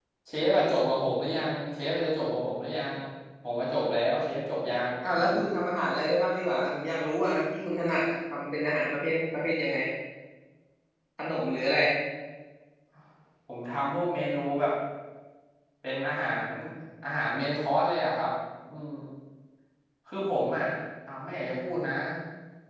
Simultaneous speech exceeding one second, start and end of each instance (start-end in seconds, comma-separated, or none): none